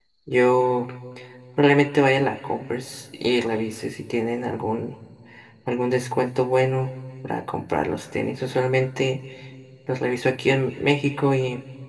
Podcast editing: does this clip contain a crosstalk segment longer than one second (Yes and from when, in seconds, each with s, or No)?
No